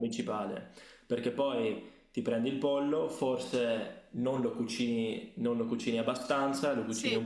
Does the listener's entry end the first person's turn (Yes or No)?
No